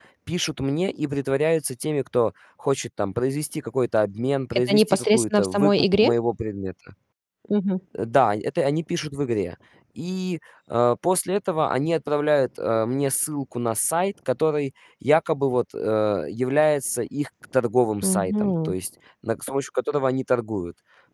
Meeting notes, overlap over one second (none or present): present